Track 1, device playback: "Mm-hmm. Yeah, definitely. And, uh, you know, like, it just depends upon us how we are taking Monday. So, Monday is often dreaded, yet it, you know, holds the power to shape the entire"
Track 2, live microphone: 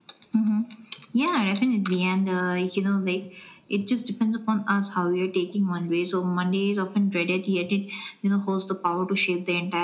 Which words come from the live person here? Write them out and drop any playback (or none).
none